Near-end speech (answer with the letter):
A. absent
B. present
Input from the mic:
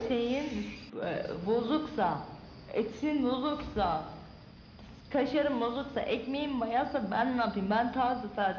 A